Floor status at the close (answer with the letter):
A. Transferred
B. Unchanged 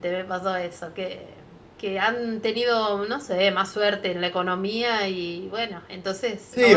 A